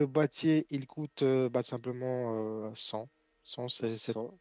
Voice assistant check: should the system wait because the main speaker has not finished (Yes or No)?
No